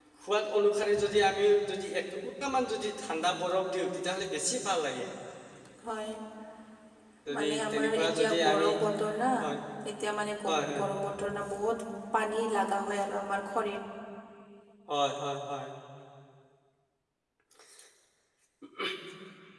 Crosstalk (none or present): present